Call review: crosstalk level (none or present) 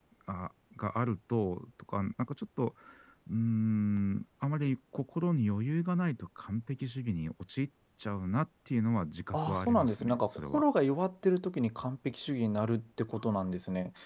present